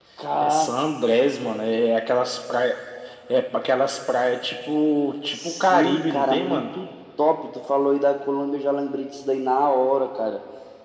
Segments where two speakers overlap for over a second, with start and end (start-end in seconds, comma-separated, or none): 5.3-6.6